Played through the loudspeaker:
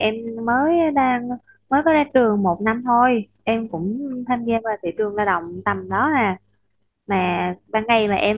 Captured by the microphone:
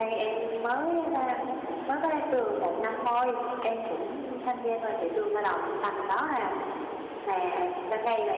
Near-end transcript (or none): none